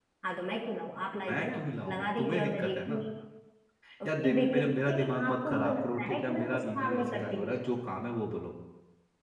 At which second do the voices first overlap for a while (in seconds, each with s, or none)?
1.2 s